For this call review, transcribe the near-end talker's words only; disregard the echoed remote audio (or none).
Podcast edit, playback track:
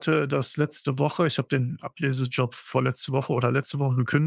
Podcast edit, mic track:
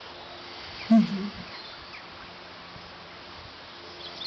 Mhm.